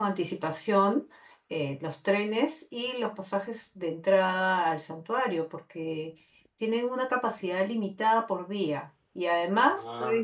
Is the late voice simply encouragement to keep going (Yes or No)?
Yes